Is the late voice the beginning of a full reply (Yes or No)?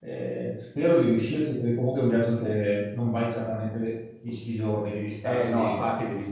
Yes